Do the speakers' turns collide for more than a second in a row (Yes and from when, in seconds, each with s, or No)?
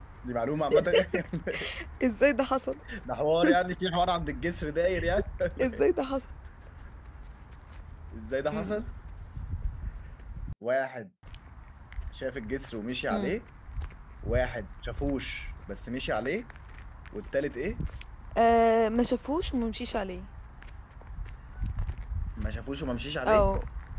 No